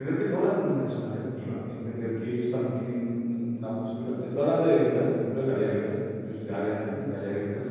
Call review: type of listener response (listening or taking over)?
listening